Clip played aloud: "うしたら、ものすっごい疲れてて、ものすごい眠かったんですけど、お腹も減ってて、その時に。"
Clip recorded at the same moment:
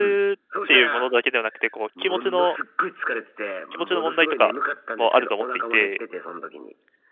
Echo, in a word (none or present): present